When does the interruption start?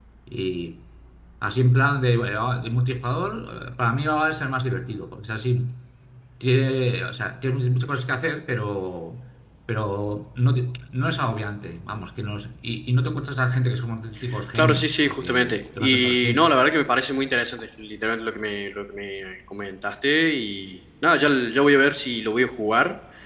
14.3 s

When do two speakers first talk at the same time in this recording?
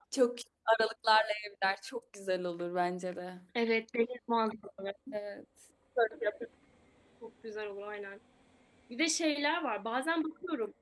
none

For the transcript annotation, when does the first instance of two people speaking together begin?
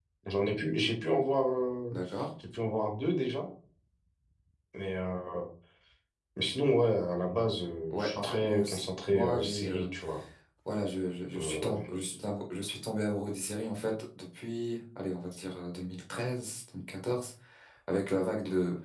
7.9 s

